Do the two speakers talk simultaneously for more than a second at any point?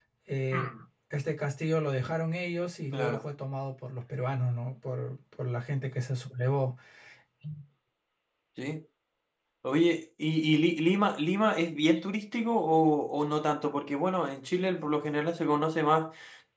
No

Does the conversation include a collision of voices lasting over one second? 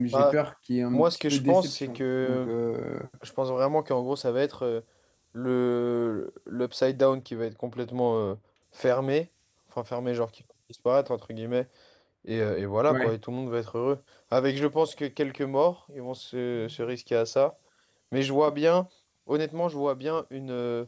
Yes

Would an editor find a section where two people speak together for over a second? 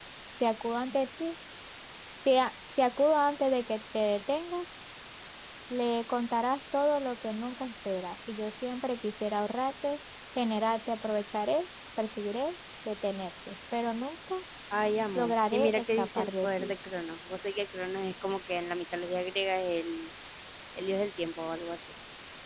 Yes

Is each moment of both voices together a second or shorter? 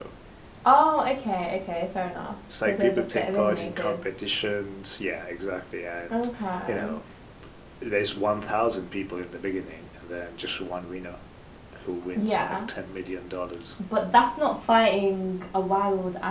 No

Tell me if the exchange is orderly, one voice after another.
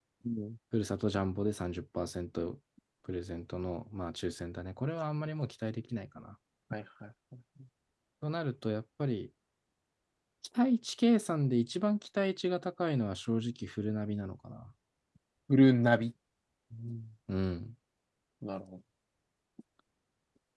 Yes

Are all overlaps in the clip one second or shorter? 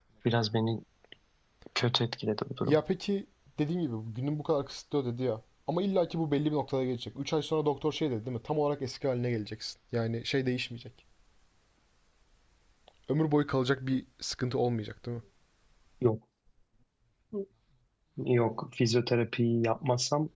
Yes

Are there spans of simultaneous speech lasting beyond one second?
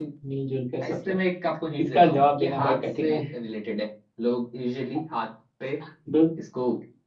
Yes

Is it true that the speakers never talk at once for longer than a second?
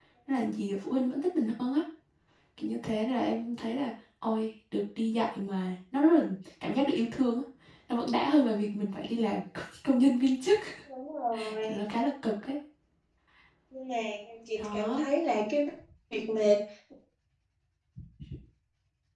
Yes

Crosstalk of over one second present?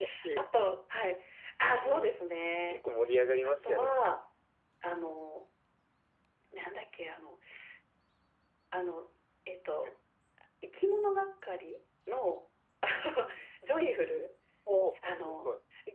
No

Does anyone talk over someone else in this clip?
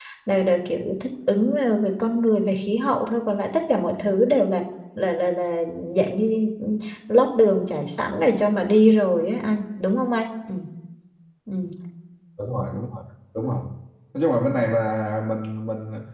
No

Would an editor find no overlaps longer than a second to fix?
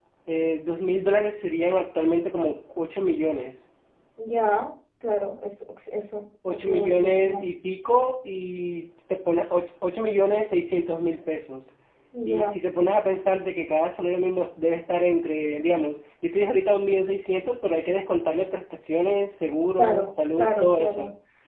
No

